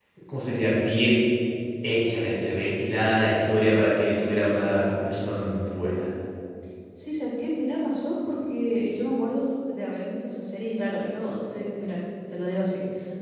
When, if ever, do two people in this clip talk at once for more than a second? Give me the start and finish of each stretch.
none

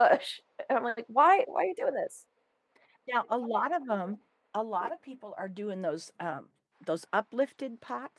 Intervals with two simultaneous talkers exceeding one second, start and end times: none

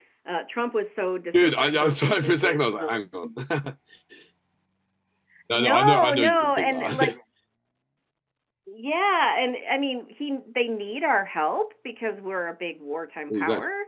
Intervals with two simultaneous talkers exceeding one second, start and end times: 1.3-3.3, 5.5-7.1

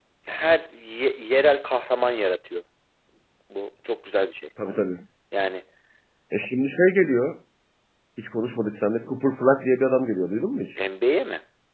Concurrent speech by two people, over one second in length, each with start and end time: none

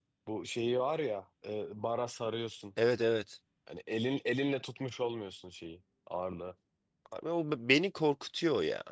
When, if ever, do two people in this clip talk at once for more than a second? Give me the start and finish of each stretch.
none

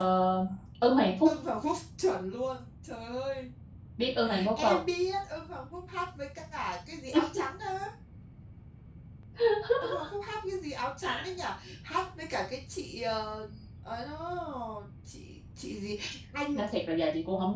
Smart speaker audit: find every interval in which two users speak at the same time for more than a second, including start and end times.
none

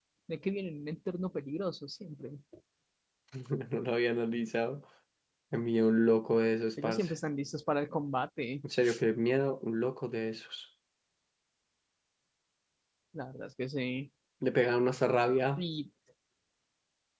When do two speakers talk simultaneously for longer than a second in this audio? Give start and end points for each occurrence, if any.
none

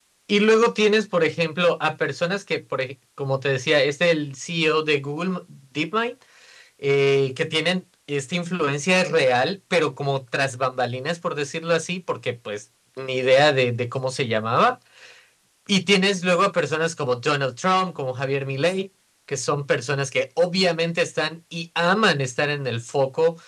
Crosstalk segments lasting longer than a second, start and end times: none

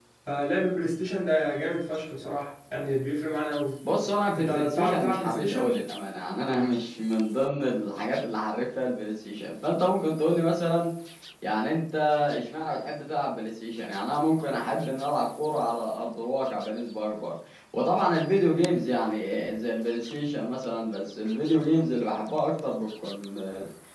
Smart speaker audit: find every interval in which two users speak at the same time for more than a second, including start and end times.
4.3-5.7

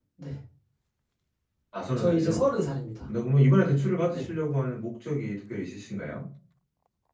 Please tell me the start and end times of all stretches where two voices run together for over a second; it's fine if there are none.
none

